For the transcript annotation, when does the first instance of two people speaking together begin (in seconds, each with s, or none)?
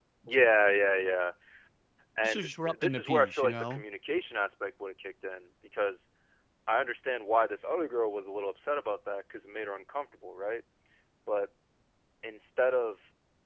2.2 s